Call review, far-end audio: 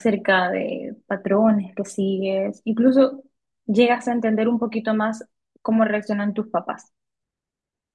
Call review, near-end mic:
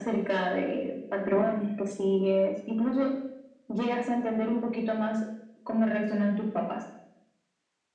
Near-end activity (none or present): none